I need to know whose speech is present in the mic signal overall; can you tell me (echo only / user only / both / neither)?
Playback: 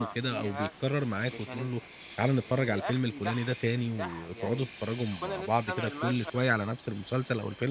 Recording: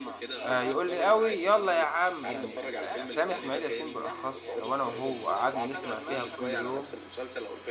both